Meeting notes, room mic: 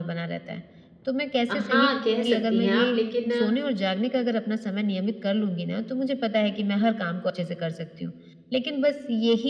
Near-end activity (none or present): present